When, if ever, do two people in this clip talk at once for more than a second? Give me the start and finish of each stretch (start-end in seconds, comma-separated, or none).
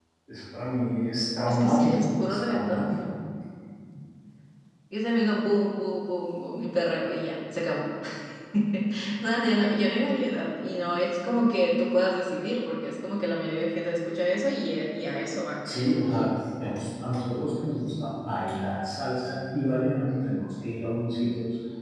1.5-2.9